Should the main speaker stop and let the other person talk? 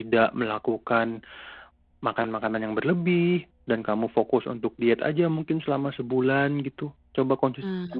No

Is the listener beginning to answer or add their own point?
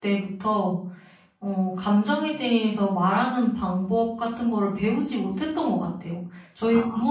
No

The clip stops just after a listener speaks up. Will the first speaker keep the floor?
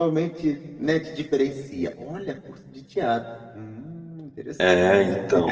No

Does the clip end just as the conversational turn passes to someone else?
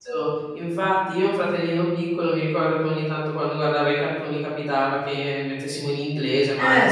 No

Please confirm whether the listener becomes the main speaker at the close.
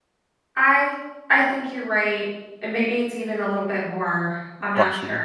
Yes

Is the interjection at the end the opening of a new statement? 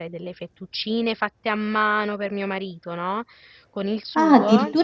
Yes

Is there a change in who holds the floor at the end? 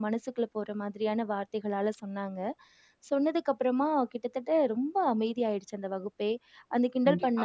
Yes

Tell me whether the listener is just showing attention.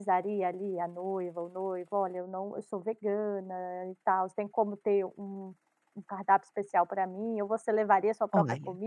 No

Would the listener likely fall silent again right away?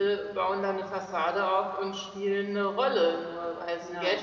Yes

